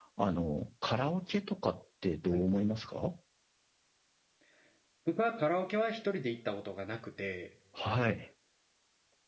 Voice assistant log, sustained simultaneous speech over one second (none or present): none